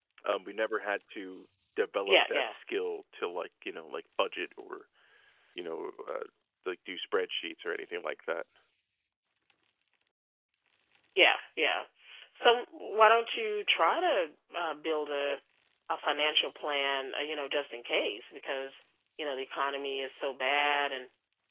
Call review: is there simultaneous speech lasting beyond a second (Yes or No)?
No